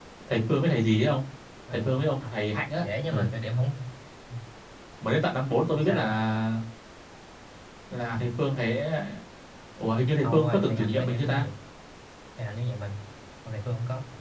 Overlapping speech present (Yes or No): Yes